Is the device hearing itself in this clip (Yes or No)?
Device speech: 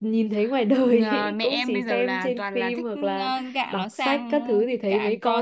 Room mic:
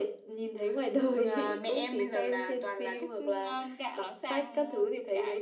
Yes